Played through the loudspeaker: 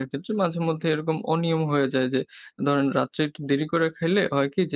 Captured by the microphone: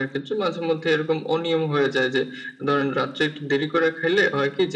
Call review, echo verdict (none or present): present